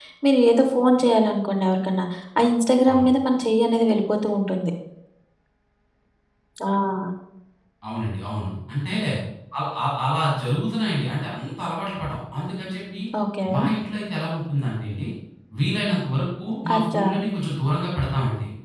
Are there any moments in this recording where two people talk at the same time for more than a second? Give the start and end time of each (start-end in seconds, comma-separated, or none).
none